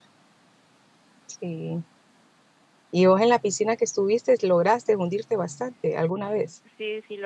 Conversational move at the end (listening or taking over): taking over